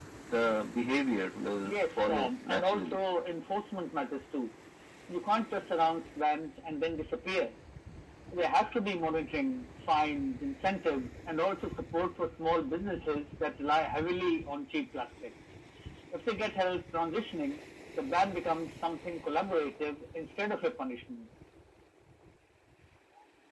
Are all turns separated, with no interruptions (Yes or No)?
No